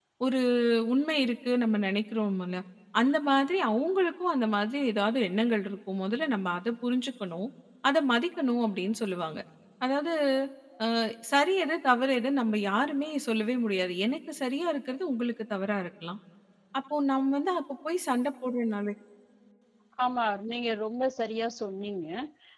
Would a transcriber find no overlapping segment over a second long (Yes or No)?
Yes